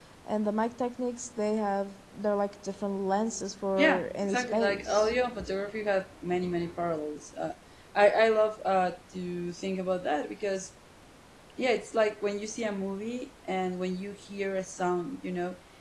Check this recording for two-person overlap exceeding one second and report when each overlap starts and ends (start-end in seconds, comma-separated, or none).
3.8-5.1